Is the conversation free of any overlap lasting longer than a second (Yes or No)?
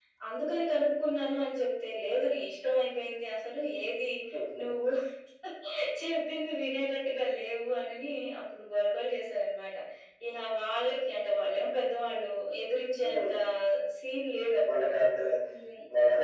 Yes